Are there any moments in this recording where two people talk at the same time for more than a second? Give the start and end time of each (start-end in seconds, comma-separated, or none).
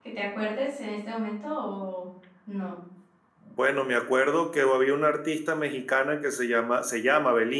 none